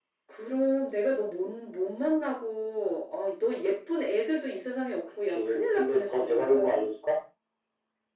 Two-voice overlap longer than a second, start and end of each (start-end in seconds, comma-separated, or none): 5.3-6.8